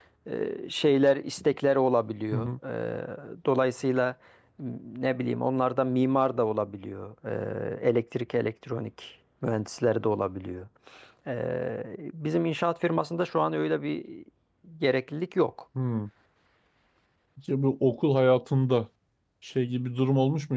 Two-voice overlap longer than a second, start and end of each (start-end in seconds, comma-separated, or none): none